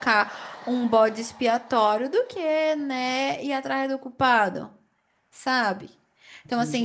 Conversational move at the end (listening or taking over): listening